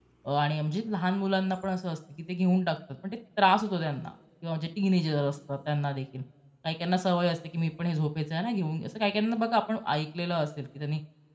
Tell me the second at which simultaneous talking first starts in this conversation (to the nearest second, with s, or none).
none